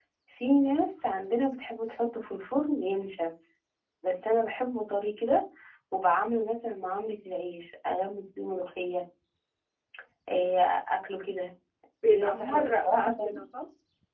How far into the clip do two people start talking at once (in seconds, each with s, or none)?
12.0 s